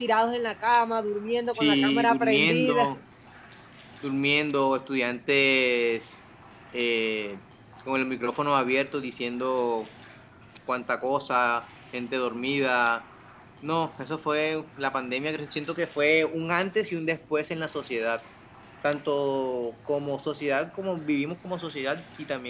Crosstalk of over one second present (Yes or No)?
Yes